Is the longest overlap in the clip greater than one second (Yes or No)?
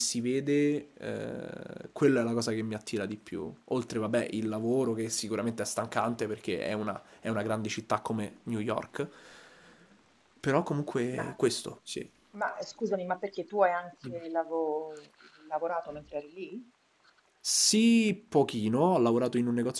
No